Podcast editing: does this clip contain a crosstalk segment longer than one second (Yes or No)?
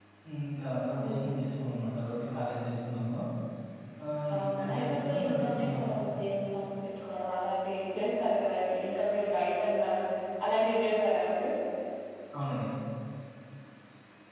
Yes